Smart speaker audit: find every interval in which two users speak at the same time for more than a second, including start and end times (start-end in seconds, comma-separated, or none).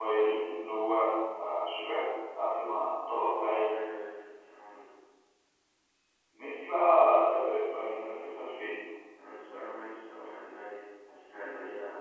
none